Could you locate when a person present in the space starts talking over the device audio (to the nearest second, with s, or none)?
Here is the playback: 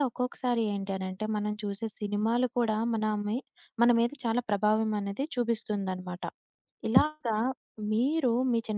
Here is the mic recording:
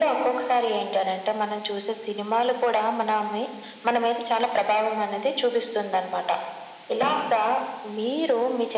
none